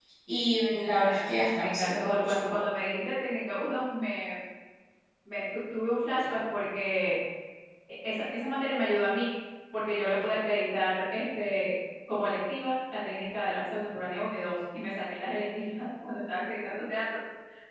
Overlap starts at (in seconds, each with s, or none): 1.0 s